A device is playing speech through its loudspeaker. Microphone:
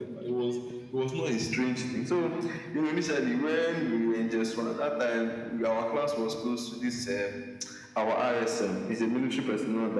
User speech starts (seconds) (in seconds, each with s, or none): none